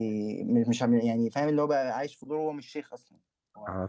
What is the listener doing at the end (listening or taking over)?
taking over